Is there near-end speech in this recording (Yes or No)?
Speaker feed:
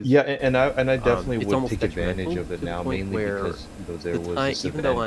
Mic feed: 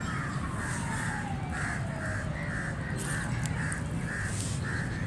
No